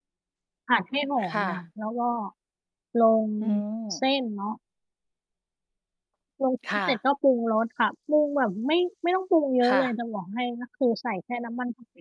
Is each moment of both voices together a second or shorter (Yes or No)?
Yes